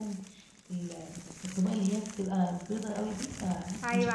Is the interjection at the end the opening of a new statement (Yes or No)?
Yes